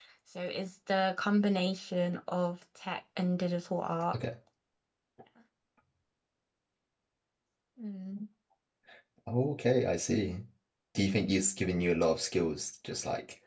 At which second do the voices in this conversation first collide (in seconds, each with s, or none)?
none